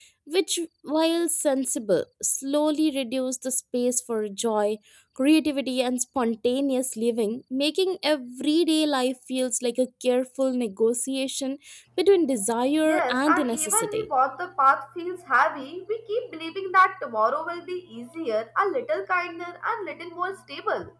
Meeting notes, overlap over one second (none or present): present